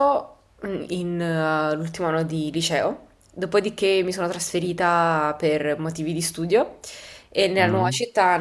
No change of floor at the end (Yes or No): Yes